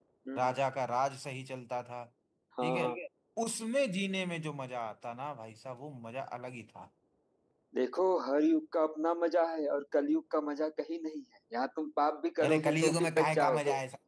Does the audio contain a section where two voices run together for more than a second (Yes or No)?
Yes